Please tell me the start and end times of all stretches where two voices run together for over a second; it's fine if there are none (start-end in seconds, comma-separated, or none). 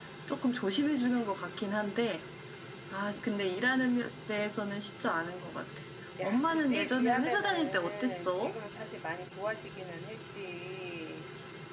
6.2-8.5